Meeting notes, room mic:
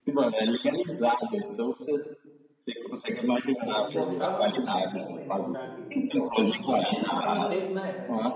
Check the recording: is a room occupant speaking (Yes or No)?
Yes